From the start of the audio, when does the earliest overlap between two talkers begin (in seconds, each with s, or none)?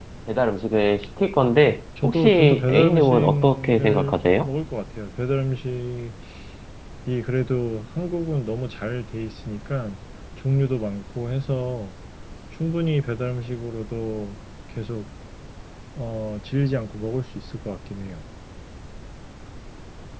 2.0 s